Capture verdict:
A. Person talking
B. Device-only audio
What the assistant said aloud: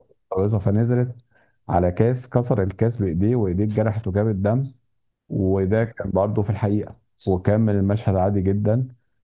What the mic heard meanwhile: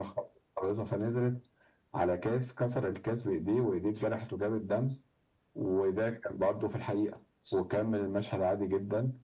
B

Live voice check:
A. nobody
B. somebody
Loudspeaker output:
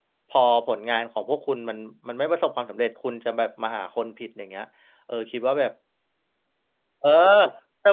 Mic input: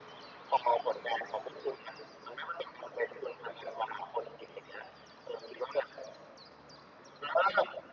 A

